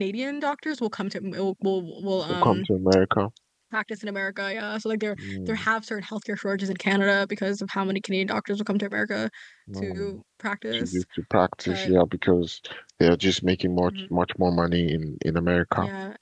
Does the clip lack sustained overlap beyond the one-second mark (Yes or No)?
Yes